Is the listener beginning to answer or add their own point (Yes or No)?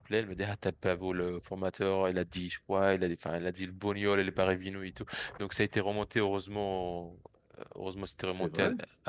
No